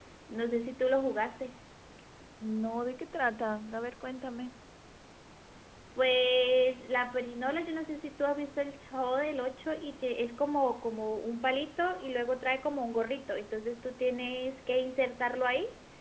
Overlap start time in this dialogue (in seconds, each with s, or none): none